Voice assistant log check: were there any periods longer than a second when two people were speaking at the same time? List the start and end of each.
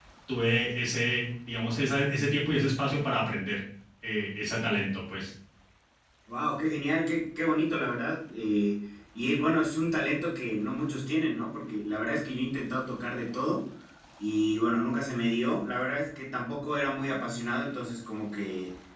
none

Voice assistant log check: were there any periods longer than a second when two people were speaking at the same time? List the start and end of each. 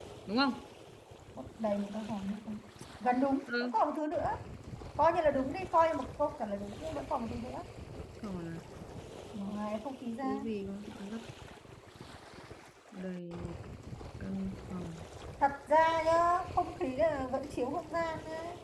none

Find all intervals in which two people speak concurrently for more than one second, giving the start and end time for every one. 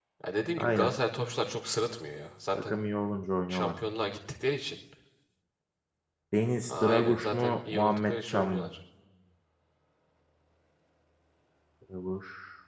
6.7-8.7

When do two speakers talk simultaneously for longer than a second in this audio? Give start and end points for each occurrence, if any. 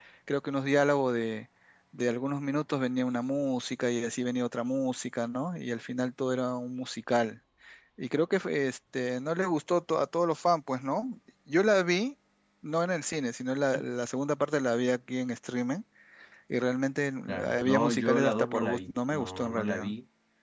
17.3-19.9

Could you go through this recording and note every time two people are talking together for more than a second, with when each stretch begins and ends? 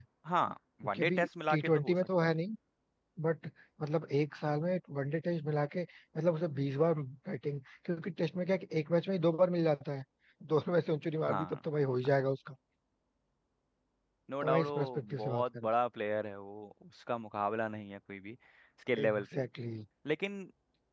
0.8-2.3, 14.4-15.7

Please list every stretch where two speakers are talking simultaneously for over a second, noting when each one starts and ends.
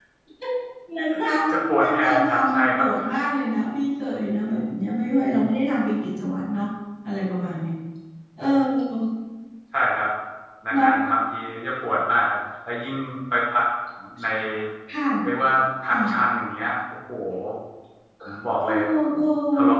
1.5-2.9

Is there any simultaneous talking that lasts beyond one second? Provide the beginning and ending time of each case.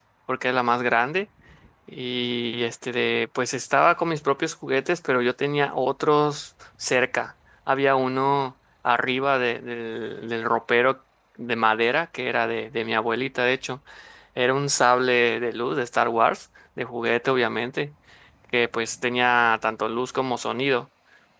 none

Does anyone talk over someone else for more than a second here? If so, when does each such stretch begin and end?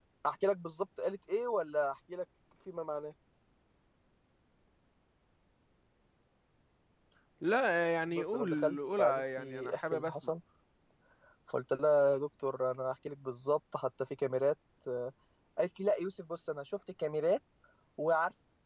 8.2-10.3

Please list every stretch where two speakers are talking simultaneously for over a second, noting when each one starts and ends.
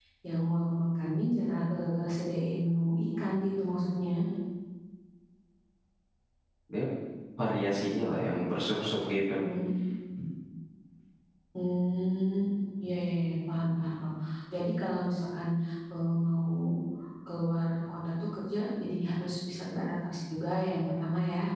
none

